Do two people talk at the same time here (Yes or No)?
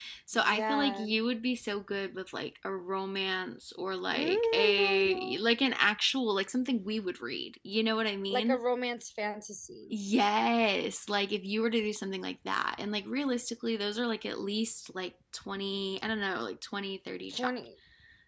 Yes